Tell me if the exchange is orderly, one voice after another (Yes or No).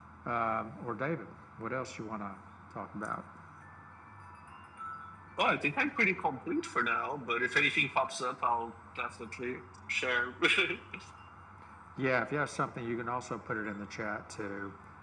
Yes